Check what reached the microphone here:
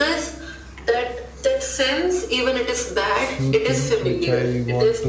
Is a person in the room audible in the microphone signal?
Yes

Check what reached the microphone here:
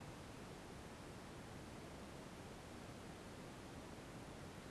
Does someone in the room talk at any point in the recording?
No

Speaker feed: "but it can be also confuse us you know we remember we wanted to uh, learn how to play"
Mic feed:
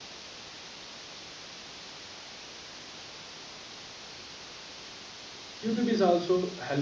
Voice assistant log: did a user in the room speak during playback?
Yes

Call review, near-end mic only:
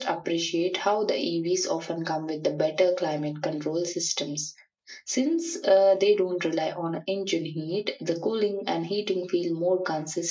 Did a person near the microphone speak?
No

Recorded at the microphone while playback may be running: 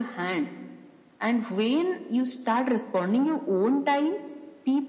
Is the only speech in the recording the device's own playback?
Yes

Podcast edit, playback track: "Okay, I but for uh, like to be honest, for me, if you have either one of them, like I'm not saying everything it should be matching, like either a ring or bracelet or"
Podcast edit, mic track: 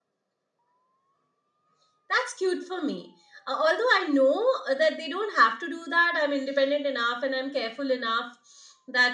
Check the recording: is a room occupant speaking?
Yes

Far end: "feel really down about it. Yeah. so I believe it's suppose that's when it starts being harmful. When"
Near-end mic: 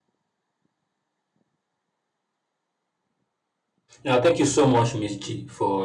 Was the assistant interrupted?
Yes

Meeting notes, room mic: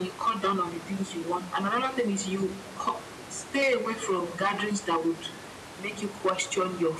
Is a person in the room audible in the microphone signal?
No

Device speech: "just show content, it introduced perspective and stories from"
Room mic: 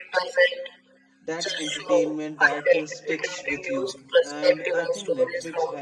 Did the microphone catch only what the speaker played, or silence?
No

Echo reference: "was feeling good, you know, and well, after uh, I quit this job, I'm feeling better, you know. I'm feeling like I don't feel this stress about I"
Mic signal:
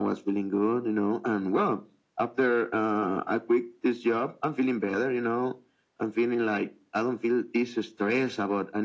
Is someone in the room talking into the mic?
No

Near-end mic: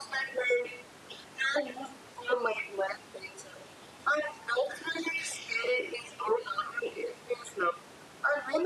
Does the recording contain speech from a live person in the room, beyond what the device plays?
No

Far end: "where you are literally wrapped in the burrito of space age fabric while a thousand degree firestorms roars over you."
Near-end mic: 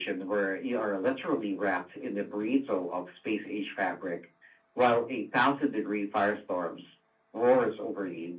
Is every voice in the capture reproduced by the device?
Yes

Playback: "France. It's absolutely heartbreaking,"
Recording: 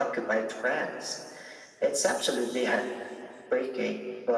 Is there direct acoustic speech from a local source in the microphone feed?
No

